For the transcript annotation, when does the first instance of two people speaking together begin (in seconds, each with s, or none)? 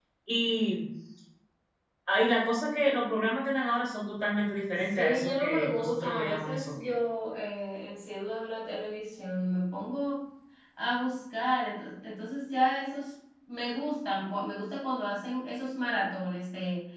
4.9 s